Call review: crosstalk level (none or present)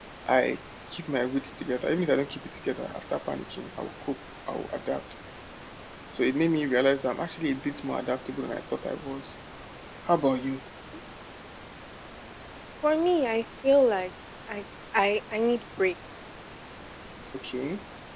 none